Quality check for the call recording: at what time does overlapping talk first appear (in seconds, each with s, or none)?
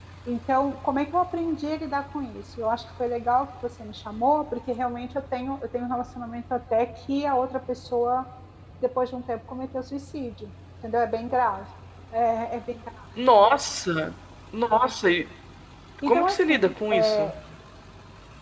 16.1 s